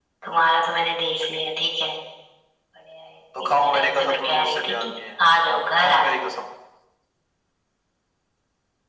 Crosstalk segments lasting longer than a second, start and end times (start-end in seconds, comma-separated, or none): 3.4-5.2